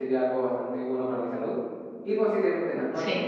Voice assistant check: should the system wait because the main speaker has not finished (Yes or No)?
Yes